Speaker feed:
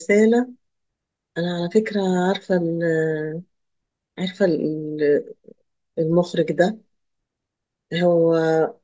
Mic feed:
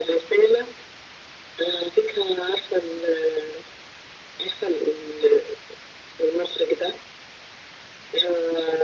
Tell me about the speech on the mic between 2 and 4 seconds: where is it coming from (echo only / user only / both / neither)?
echo only